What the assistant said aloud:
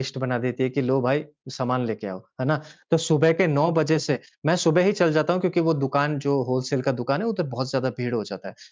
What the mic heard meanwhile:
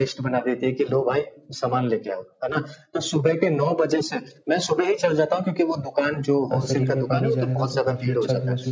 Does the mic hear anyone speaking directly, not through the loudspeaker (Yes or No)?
Yes